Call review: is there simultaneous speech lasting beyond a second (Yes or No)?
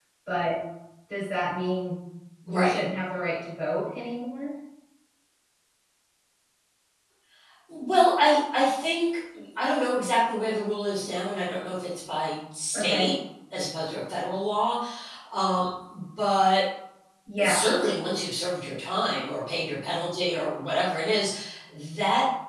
No